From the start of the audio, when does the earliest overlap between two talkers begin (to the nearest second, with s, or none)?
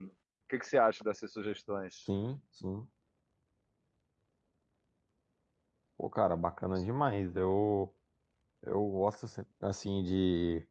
none